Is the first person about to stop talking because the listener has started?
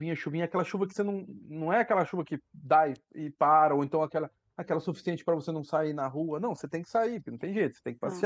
No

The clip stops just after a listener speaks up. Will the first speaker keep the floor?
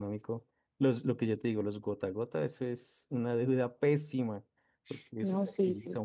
No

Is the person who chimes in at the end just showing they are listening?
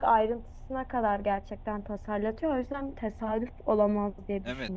No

